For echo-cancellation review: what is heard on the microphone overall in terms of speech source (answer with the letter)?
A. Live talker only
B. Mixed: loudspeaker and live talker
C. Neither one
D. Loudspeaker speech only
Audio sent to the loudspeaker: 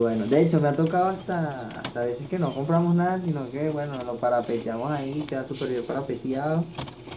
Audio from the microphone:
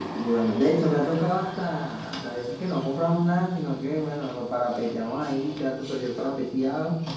D